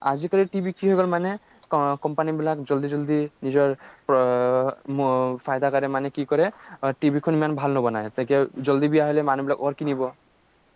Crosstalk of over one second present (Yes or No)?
No